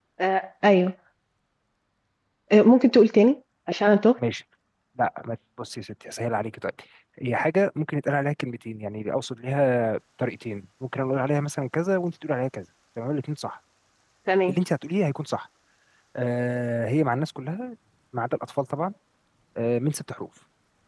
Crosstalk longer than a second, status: none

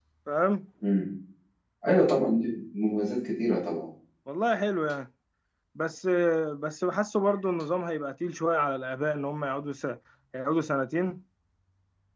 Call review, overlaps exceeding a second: none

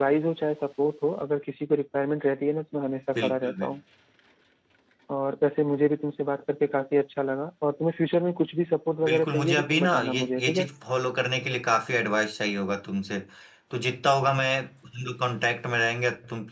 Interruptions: present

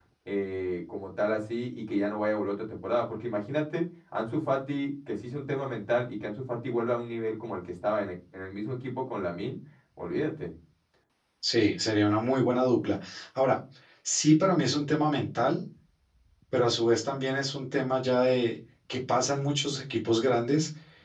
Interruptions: none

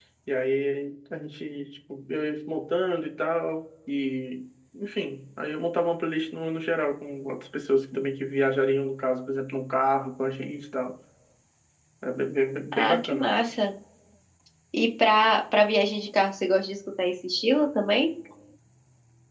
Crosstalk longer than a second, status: none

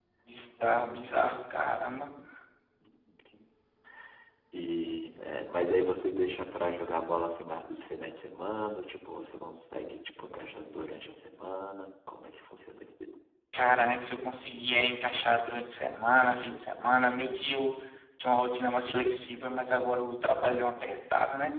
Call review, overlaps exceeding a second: none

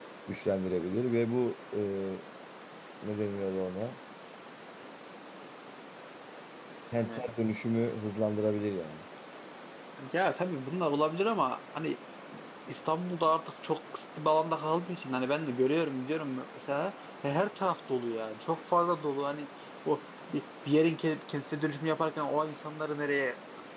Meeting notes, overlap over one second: none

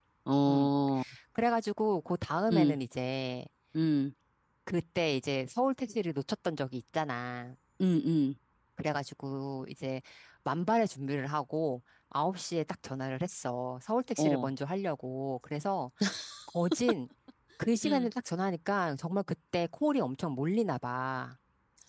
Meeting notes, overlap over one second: none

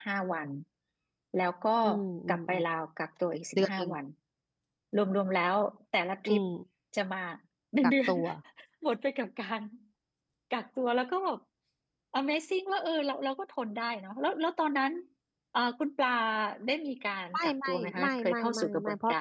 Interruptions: present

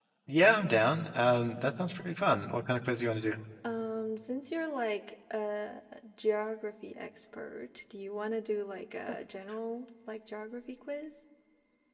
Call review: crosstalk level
none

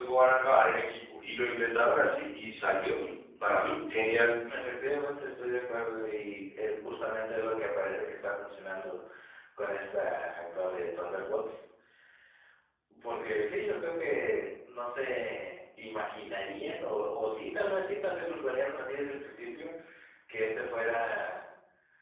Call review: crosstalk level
none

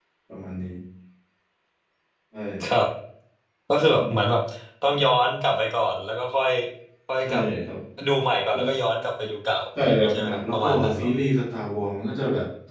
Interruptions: present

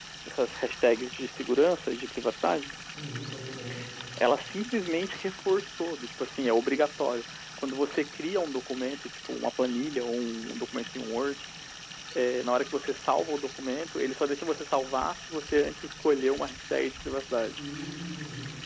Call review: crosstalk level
none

